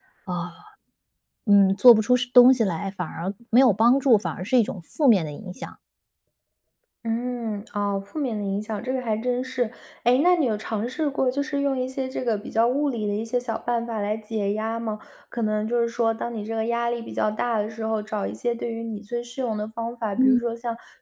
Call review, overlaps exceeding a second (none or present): none